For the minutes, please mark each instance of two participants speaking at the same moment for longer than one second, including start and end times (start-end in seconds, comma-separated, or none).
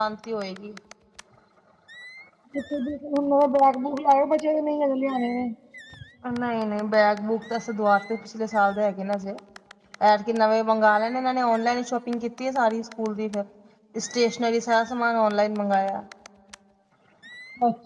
none